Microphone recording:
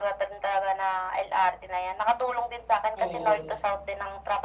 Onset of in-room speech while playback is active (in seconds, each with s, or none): 2.9 s